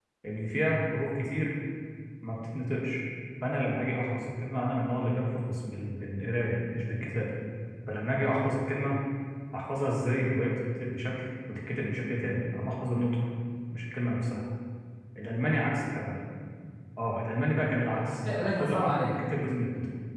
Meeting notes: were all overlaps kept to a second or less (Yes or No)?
No